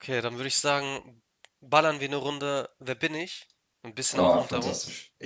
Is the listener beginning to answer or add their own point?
Yes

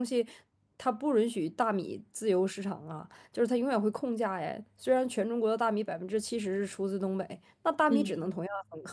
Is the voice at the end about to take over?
No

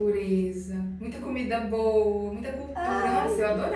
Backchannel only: Yes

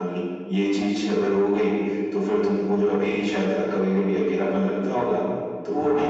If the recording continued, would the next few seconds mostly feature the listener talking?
Yes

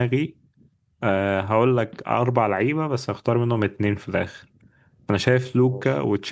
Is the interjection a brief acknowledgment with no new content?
Yes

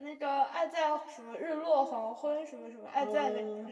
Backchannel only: No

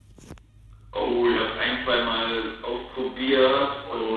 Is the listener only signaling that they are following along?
Yes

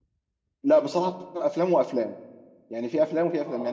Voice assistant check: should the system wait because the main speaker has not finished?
Yes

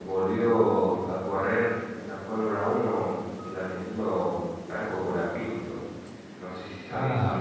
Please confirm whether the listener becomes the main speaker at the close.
Yes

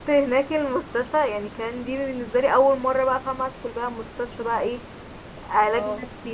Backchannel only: Yes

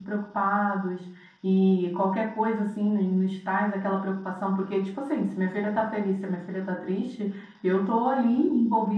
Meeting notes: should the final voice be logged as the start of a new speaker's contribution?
No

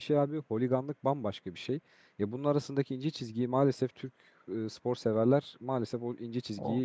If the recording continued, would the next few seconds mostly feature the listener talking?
Yes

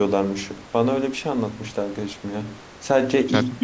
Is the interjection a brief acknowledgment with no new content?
No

